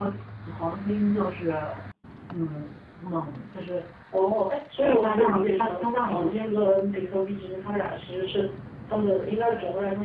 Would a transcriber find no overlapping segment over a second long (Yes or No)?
No